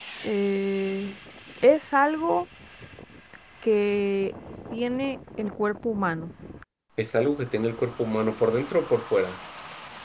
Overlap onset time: none

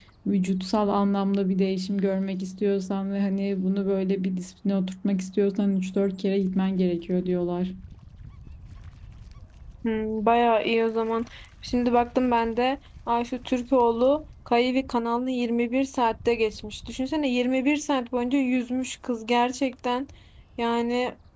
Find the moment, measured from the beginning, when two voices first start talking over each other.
none

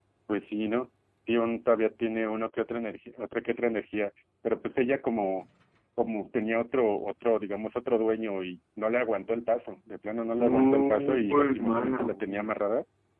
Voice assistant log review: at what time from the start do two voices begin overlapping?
10.4 s

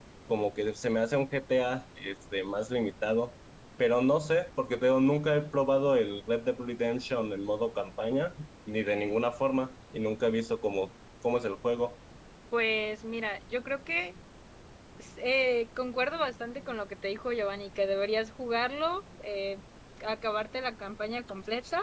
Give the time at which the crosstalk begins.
none

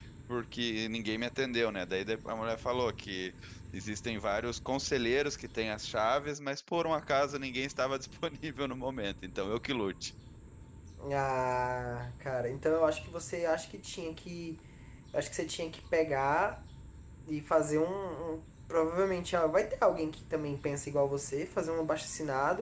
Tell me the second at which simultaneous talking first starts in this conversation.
none

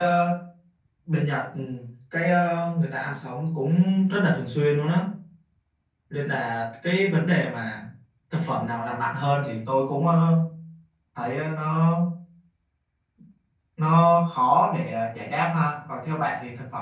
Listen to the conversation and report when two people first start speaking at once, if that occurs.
none

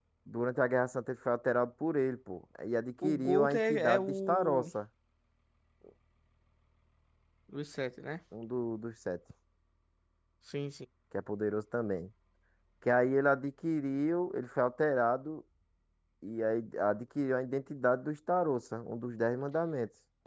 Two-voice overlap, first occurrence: 3.0 s

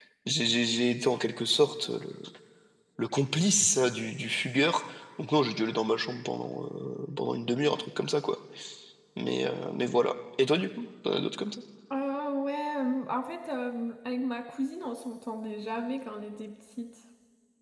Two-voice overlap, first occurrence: none

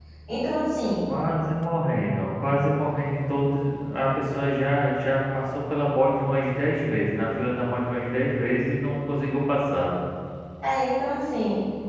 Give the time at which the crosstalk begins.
none

